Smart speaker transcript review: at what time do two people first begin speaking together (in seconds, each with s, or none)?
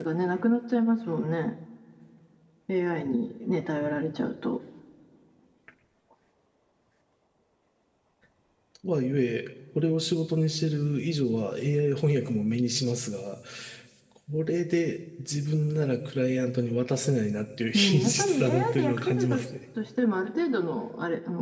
17.7 s